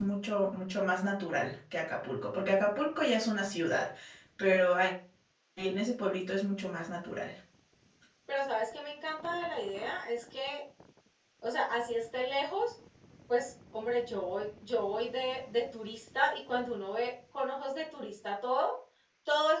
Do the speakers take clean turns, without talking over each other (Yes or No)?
Yes